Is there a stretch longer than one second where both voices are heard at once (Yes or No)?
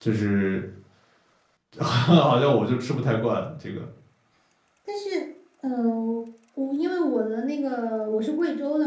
No